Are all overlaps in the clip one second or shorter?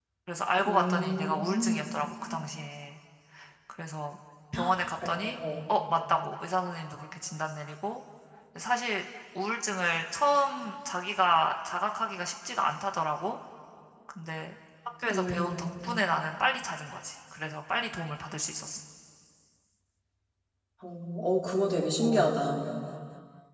No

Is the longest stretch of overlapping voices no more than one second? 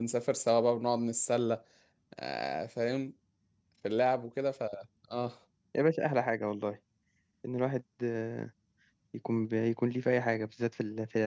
Yes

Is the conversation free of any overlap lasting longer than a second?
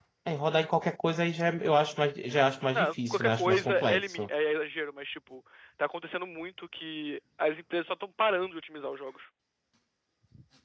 No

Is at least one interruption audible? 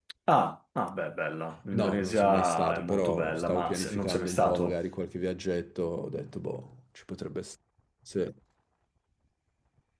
Yes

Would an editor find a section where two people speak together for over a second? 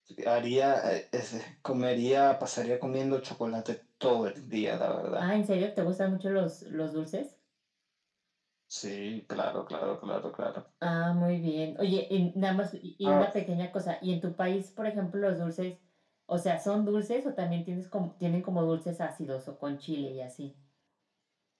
No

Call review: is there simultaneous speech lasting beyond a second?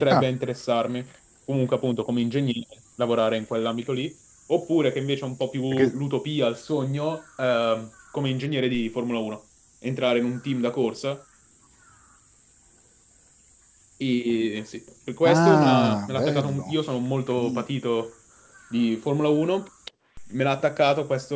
Yes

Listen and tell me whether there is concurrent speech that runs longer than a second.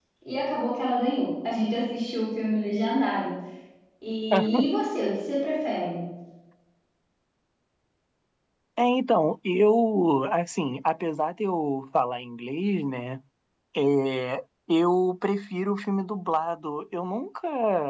No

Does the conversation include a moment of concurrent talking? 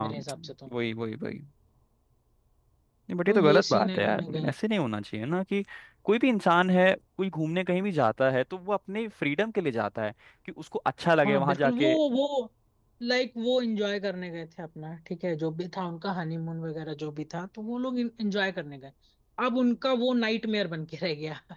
Yes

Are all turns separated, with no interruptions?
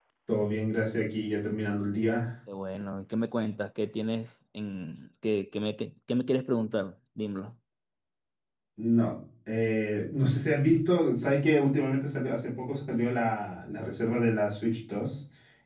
Yes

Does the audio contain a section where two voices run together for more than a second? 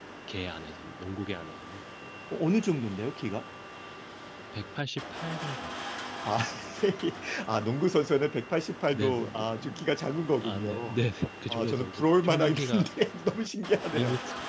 Yes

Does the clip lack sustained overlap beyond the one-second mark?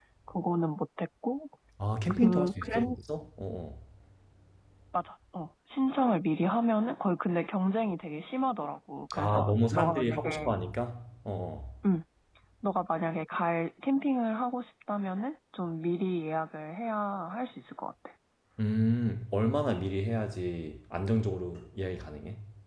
No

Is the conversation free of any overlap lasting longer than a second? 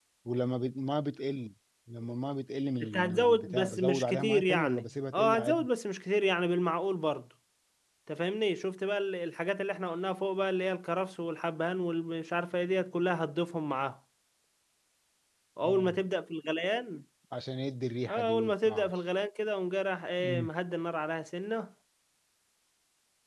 No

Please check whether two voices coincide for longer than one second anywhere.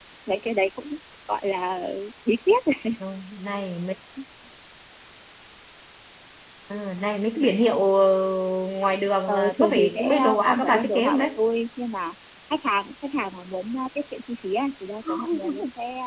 Yes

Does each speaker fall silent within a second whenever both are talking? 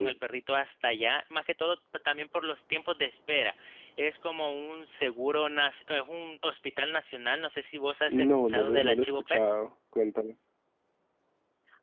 No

